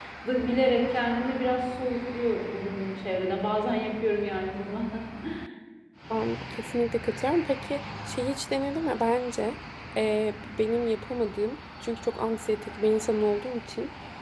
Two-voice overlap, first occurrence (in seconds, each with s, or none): none